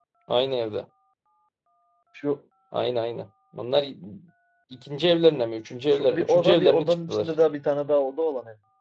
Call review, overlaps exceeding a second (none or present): present